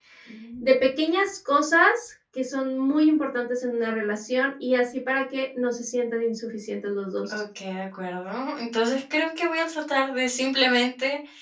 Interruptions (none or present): none